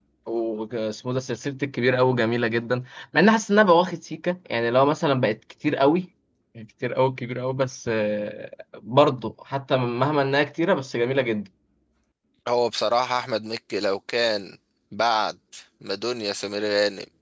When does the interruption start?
none

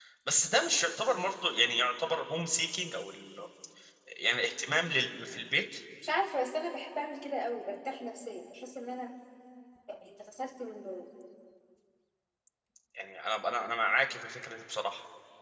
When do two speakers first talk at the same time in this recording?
none

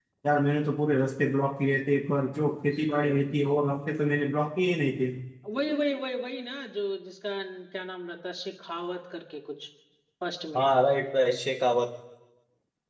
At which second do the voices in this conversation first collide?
none

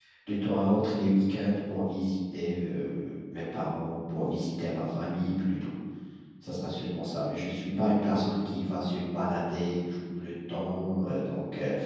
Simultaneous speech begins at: none

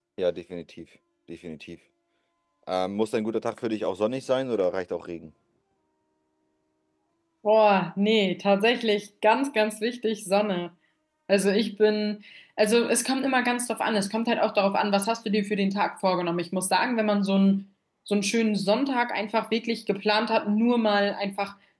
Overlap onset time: none

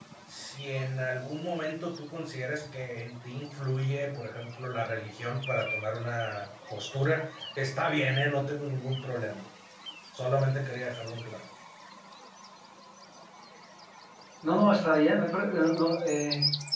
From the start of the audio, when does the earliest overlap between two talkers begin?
none

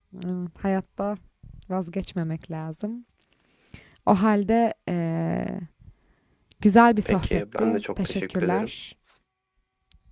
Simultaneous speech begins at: 7.0 s

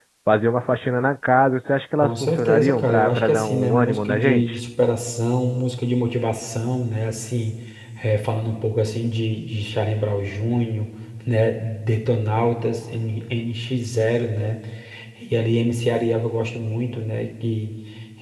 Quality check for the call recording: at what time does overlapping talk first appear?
2.0 s

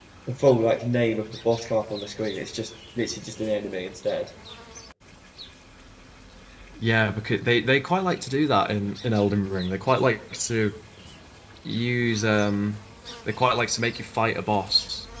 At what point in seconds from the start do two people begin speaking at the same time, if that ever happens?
none

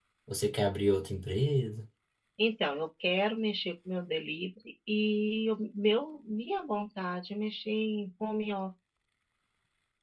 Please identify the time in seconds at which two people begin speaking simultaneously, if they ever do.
none

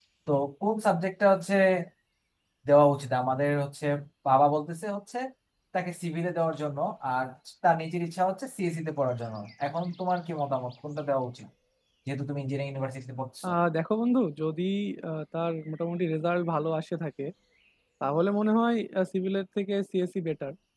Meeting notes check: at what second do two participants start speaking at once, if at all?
none

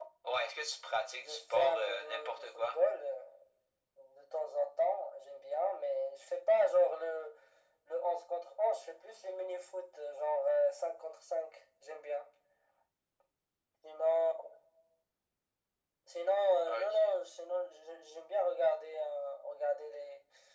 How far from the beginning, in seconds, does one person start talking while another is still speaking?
1.2 s

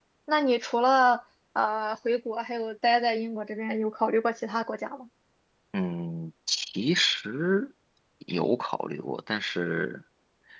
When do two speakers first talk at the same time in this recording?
none

